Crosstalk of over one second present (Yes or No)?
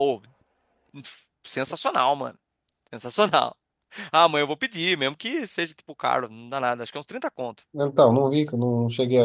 No